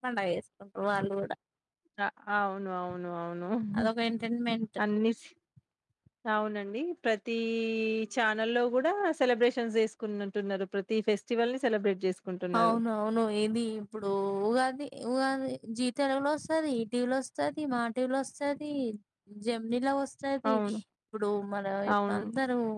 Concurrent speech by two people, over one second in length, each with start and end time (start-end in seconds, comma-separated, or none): none